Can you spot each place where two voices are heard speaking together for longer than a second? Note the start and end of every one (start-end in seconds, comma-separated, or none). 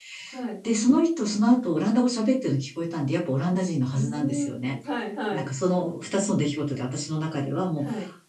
3.5-4.8